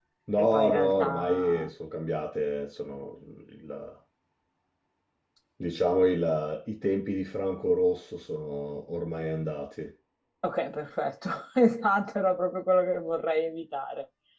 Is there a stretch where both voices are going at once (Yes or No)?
Yes